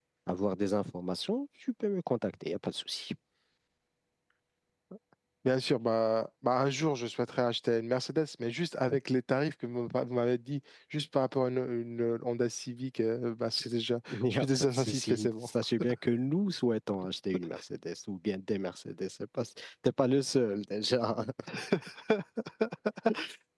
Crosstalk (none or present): present